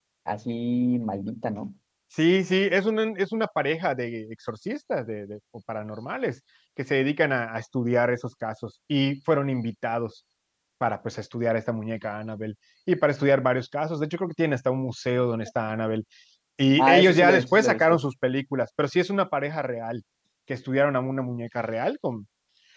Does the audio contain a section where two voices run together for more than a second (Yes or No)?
Yes